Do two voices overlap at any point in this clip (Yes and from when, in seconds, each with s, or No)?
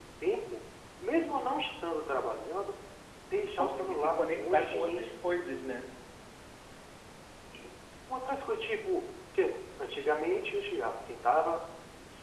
Yes, from 3.6 s